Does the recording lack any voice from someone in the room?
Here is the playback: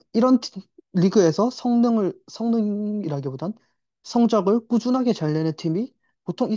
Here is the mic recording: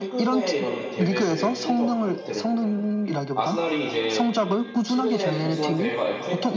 No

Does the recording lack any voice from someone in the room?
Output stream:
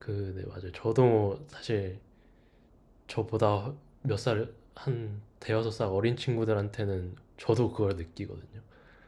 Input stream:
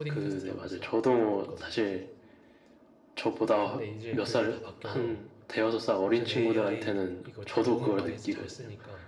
No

